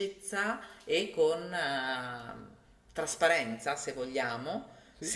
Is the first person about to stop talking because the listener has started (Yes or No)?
No